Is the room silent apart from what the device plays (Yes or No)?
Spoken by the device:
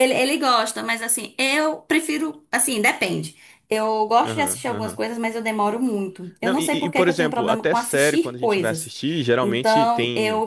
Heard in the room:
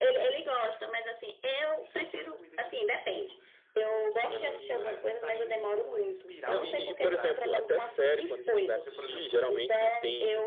No